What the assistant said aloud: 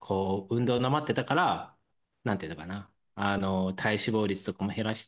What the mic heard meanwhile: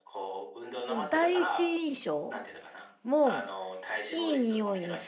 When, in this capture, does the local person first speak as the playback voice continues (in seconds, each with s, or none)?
0.8 s